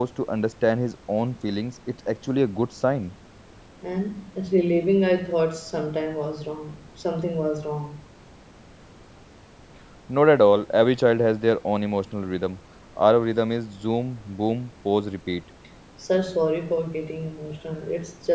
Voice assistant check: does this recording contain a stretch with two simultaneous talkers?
No

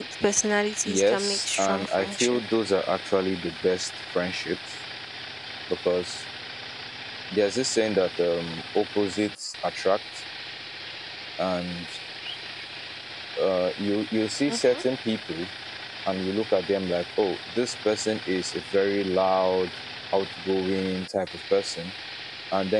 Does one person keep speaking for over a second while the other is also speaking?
Yes, from 0.9 s

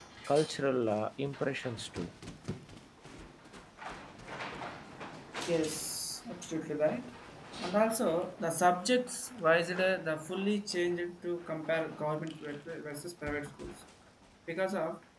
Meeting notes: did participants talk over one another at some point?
No

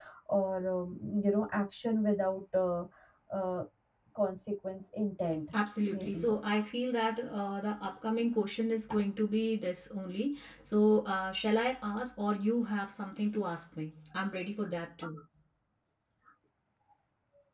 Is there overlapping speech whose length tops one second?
No

